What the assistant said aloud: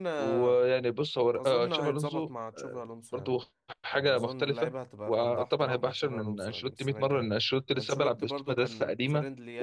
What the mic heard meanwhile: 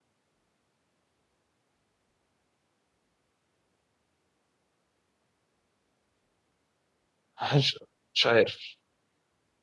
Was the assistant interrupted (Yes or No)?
Yes